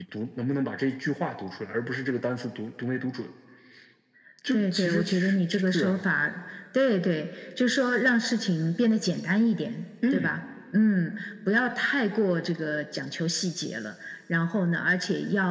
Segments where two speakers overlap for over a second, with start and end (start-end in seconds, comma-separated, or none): 4.5-6.0